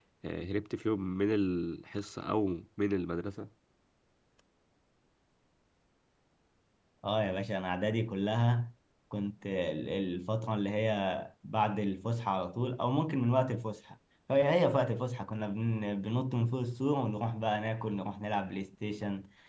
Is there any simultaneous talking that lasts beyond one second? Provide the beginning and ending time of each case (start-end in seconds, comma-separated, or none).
none